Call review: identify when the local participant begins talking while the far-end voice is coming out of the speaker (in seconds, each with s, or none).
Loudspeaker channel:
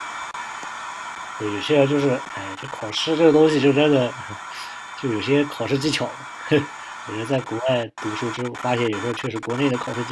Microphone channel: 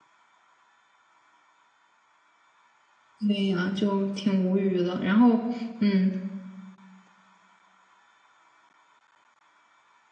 3.2 s